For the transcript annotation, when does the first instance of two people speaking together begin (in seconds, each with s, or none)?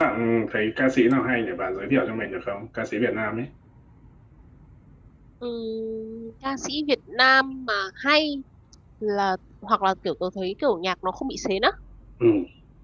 none